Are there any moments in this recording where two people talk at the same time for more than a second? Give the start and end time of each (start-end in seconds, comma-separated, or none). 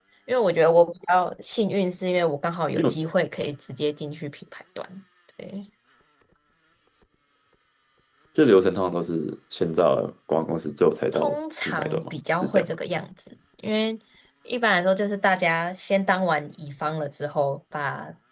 11.1-12.7